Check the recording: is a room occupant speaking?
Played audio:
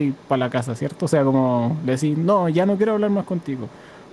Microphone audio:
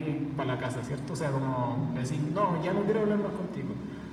No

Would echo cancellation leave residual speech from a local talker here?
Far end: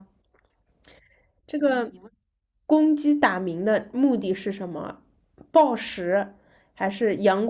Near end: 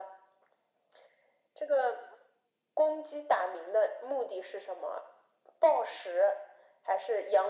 No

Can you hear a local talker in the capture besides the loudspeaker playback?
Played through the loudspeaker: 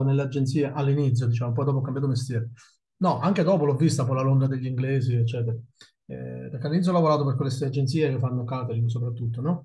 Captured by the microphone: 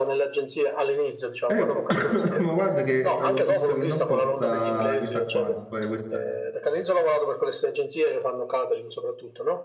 Yes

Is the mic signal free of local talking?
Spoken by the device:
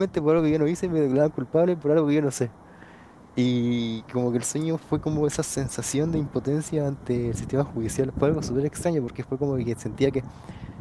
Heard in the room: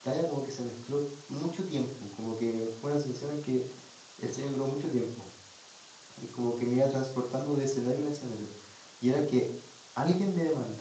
No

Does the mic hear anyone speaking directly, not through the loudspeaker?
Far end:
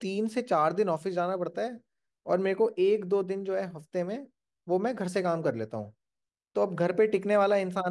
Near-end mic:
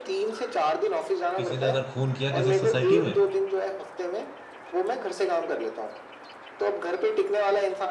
Yes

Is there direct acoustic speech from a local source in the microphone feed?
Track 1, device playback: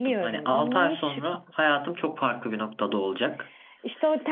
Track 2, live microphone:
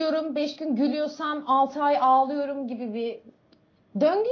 Yes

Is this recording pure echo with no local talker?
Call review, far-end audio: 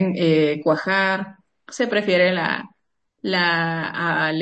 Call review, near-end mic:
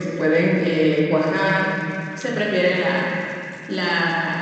Yes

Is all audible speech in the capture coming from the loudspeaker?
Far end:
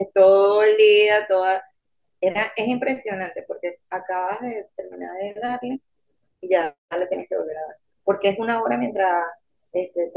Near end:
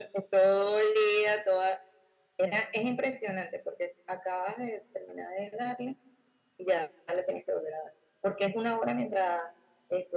Yes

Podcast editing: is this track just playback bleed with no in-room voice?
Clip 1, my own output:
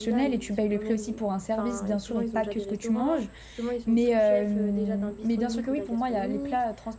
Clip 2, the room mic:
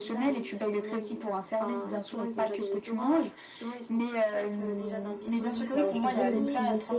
No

